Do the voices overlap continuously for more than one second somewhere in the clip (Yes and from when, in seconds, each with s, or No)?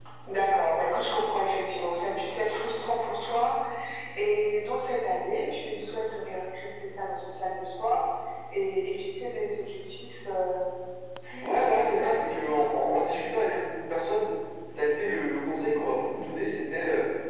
Yes, from 11.4 s